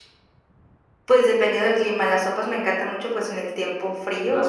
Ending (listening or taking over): listening